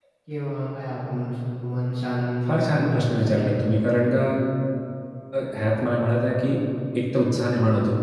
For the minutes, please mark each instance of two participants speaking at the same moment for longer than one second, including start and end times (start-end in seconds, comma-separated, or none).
2.5-3.9